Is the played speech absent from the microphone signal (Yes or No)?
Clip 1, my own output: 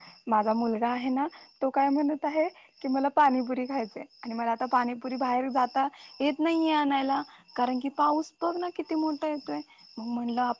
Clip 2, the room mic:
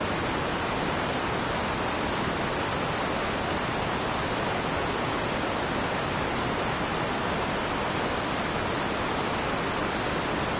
Yes